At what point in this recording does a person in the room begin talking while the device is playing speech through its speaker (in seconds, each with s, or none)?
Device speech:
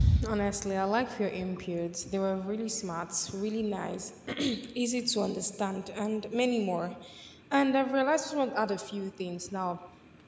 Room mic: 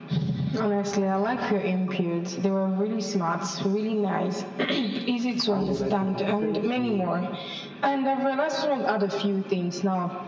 5.5 s